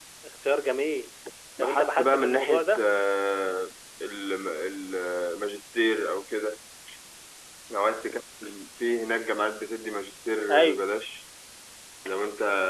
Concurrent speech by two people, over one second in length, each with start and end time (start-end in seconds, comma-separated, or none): 1.6-2.8